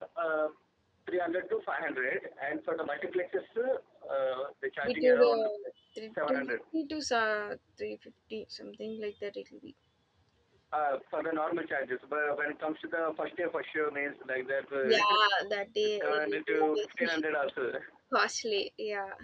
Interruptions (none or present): present